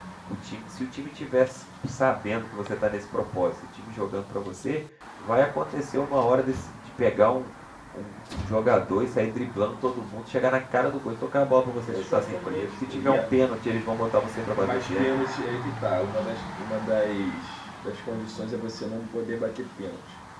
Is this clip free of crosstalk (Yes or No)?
No